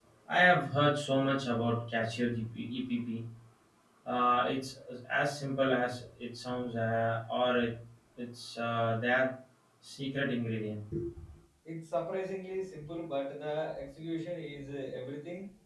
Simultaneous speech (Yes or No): No